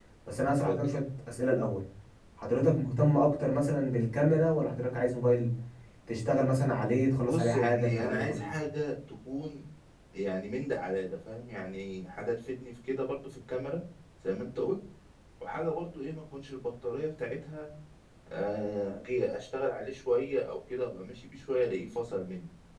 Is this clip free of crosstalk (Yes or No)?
No